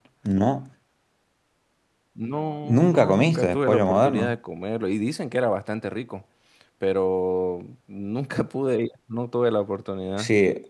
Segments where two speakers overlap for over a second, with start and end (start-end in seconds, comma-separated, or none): 2.6-4.4